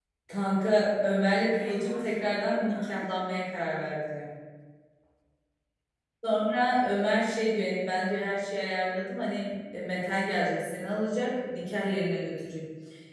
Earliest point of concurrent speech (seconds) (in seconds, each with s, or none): 1.5 s